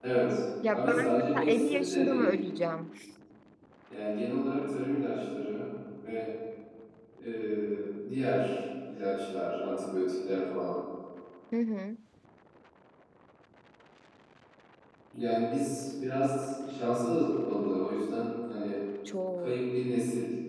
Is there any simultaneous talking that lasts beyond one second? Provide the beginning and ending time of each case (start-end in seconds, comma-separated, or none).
0.7-2.3